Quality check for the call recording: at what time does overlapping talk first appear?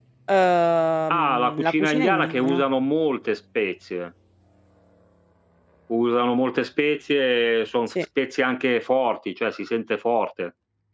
1.1 s

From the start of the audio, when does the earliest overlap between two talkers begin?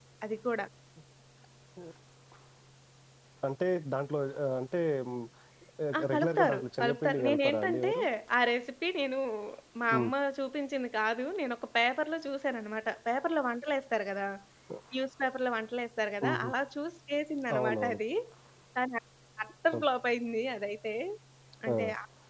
6.0 s

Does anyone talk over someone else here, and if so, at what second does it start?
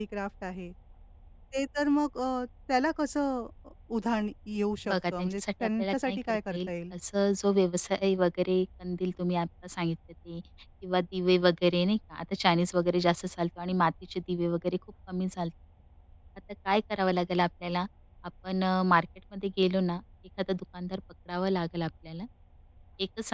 4.9 s

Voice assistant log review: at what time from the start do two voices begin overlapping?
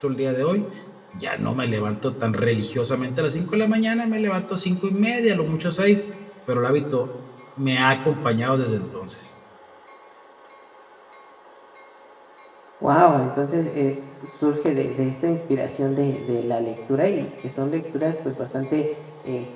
none

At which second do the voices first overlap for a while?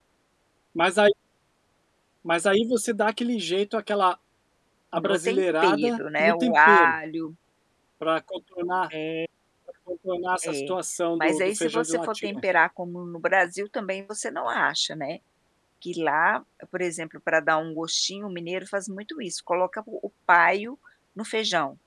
4.9 s

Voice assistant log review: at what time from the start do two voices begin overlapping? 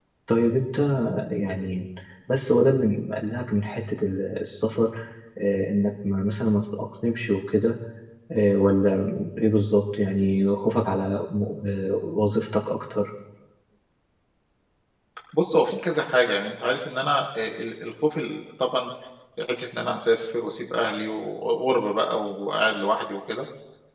none

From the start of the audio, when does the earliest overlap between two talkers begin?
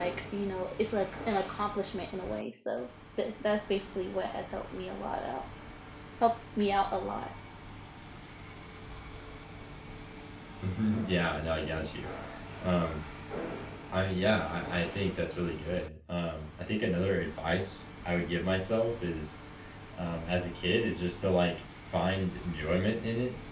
none

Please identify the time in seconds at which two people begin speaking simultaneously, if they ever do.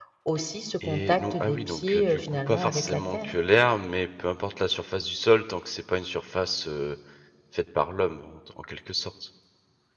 0.9 s

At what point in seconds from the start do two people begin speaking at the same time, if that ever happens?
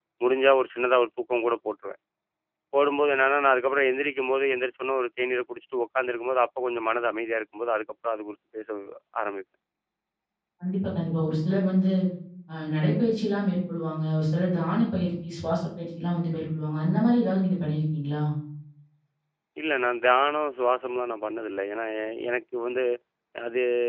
none

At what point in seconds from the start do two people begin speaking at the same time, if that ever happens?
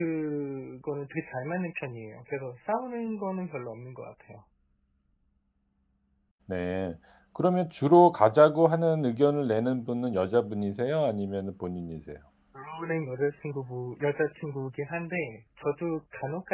none

